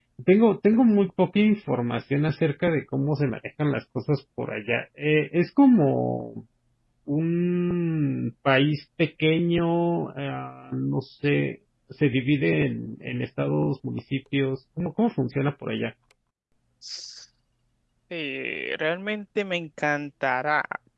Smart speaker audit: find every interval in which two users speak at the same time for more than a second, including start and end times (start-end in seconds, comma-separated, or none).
none